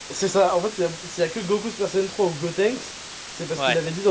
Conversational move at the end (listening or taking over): listening